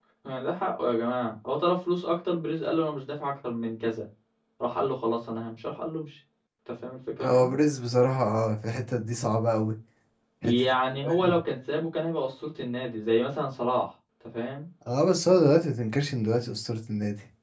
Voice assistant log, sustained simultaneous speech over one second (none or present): none